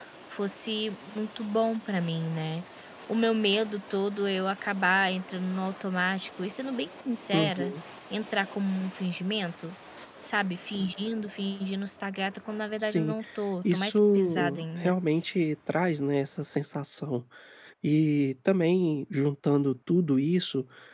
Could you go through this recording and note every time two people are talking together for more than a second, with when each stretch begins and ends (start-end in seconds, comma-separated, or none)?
13.7-14.9